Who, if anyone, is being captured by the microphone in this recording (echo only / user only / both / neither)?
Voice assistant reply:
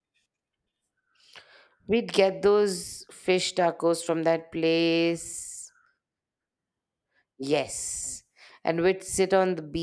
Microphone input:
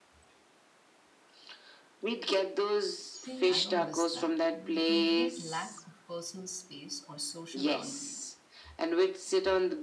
both